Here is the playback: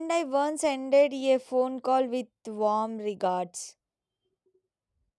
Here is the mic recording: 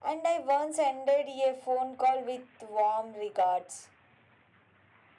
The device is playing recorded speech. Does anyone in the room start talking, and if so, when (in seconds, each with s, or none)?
none